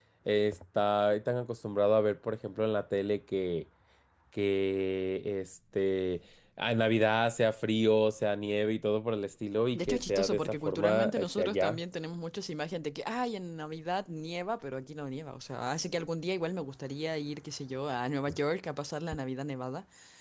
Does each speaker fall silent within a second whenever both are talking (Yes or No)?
No